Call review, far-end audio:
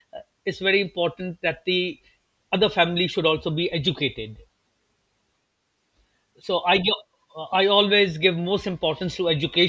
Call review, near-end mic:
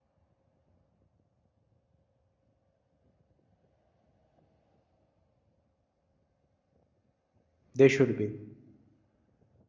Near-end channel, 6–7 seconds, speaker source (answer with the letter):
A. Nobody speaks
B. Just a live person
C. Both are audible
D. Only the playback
A